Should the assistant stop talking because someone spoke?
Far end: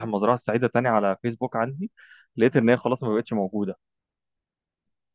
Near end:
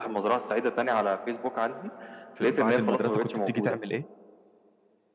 Yes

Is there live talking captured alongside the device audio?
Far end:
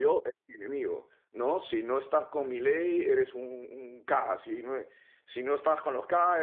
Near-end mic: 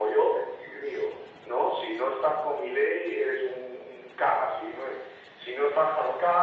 No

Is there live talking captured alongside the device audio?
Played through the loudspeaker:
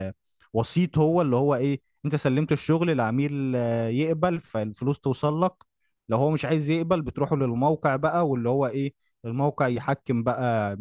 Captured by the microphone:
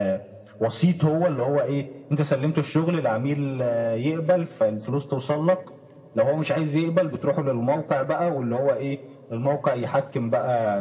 No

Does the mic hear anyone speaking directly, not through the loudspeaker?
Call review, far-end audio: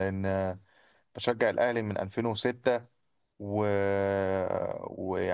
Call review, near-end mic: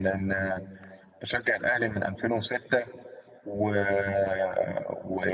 No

